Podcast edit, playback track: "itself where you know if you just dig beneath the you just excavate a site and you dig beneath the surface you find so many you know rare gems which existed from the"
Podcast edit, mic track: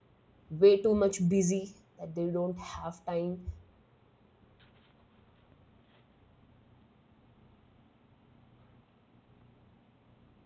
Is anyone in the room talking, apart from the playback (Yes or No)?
Yes